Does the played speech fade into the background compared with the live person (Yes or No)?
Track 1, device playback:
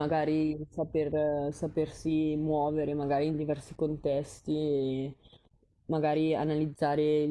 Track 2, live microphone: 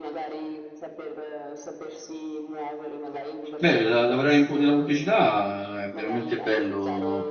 Yes